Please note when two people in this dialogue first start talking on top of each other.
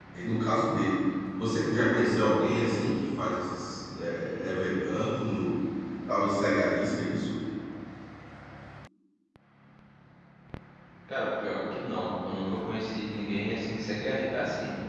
none

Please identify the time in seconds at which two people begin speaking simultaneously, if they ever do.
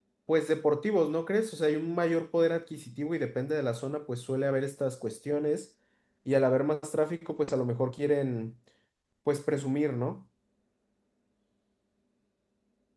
none

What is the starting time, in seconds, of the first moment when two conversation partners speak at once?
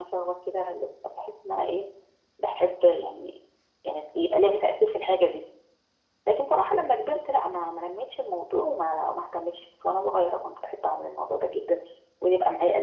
none

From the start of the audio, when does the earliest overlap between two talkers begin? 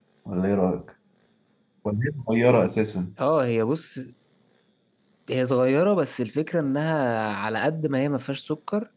none

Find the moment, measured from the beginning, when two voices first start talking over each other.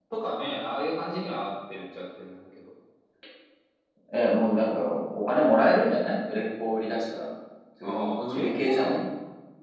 7.8 s

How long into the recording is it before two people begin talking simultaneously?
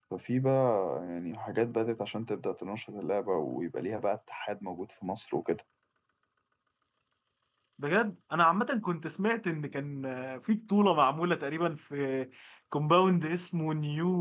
none

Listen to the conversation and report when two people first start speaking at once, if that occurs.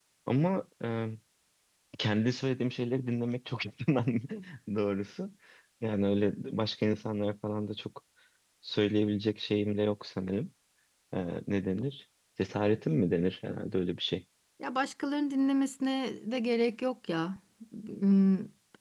none

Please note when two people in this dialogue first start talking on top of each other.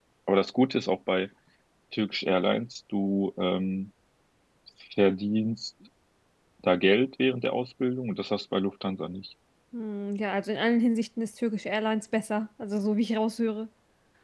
none

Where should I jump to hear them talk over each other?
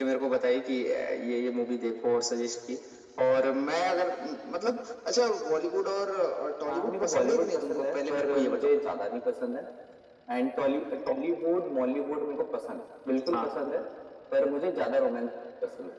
6.7 s

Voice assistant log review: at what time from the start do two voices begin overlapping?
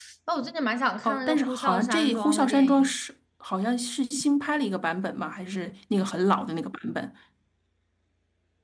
1.0 s

